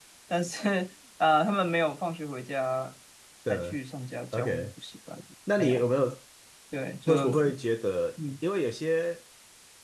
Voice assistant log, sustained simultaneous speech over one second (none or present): none